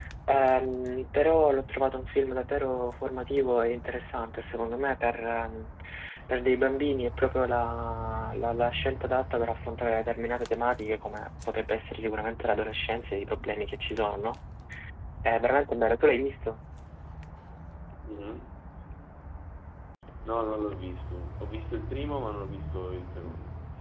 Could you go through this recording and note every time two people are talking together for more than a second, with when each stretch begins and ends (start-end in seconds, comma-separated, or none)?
none